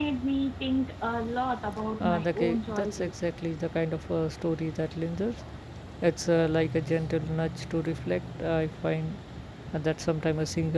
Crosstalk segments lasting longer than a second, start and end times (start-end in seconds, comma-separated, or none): 2.0-3.2